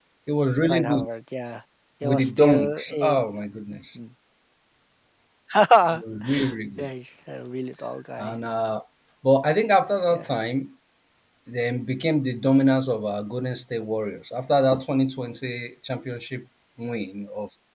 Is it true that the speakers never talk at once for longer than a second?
No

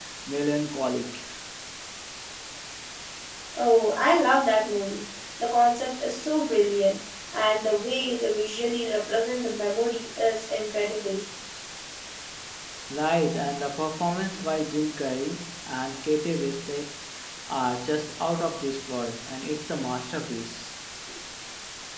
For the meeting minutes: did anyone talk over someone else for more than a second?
No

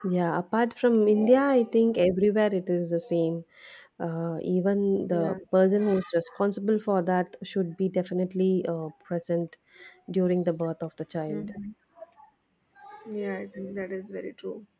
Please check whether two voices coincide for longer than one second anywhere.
No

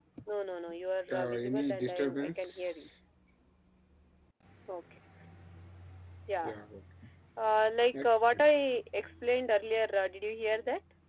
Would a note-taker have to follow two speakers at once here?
Yes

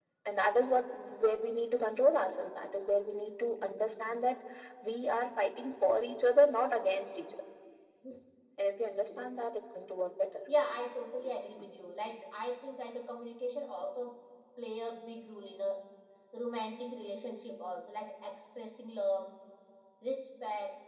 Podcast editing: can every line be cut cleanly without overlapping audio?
Yes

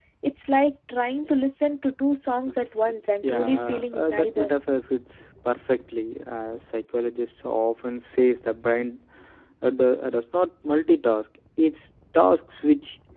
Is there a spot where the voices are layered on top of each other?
Yes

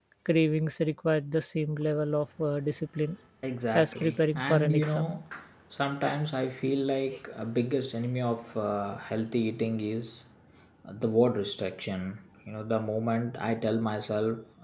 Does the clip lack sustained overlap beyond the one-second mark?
No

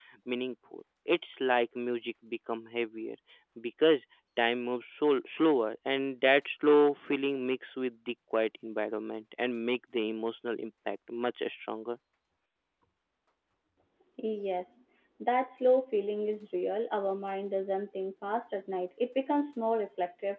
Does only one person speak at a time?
Yes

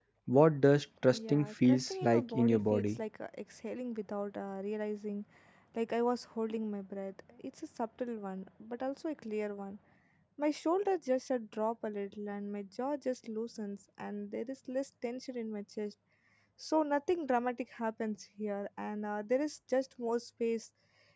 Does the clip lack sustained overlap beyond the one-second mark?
No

